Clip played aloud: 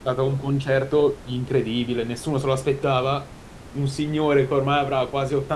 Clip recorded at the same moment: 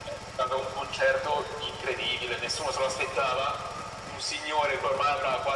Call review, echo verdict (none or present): present